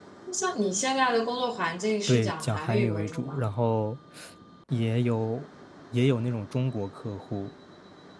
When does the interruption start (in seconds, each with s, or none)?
2.1 s